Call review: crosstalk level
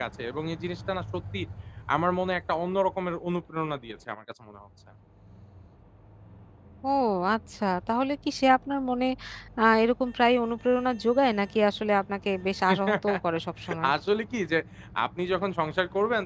none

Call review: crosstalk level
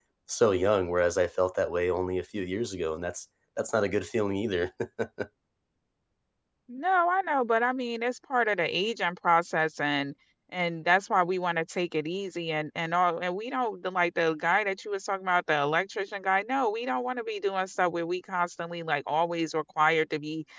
none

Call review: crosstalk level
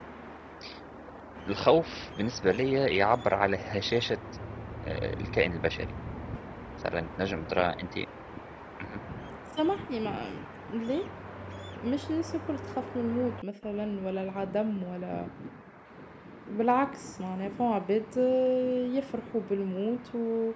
none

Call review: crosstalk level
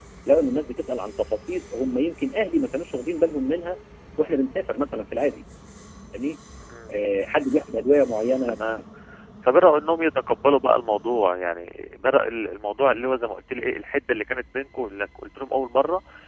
none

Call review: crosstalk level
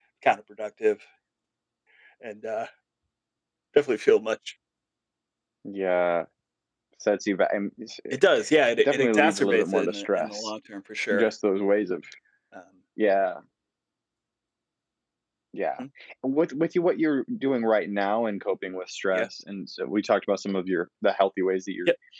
present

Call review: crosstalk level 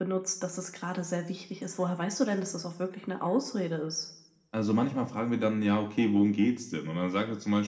none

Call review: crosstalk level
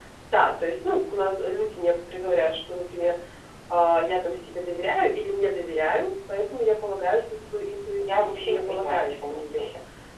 present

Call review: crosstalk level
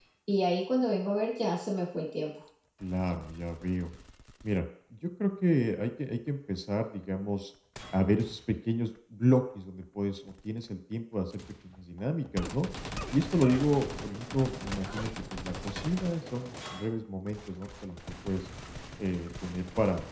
none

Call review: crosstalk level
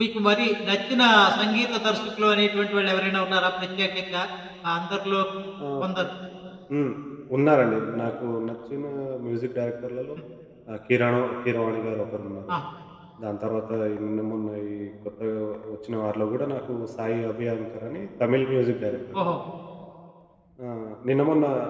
none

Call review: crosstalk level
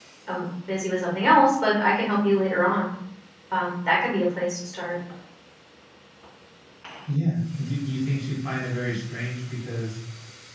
none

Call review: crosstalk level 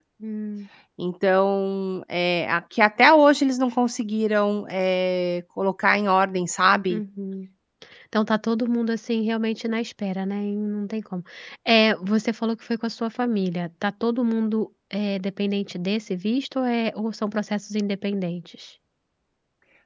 none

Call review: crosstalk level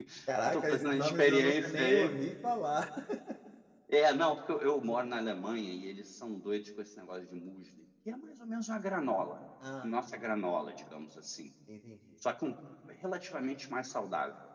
present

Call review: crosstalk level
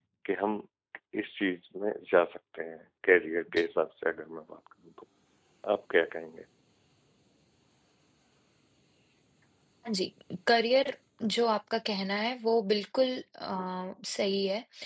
none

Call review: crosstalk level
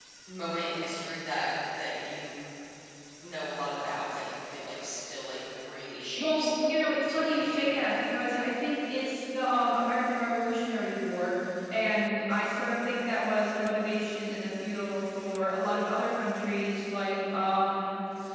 present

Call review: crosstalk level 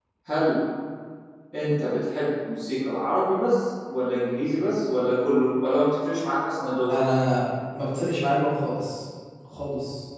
none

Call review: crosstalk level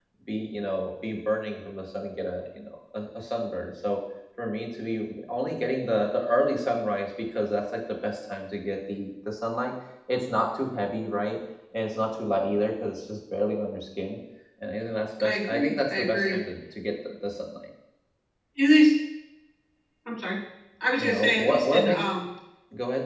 present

